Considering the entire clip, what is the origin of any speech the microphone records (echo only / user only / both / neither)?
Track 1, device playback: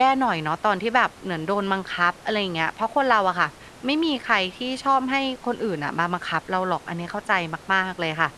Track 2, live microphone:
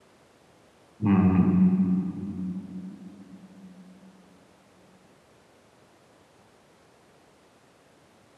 user only